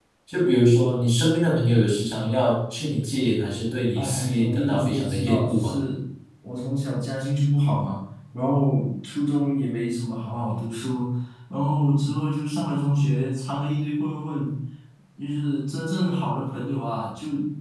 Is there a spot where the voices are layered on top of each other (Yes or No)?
Yes